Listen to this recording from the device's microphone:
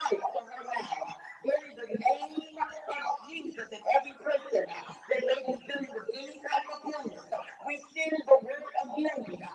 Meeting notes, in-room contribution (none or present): none